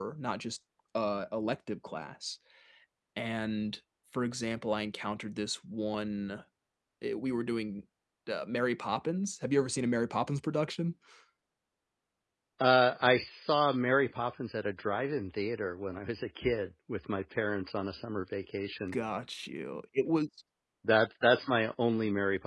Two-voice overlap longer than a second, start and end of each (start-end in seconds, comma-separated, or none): none